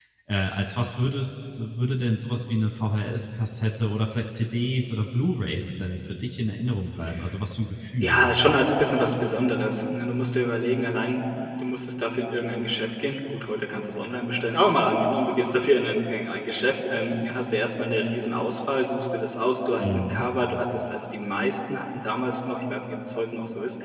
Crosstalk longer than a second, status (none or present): none